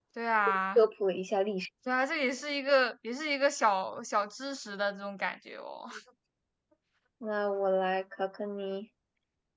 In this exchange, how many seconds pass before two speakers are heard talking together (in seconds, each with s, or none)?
none